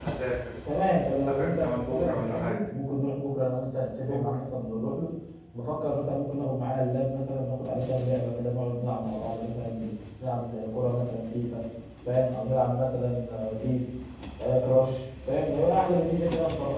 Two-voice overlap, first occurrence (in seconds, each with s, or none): 1.1 s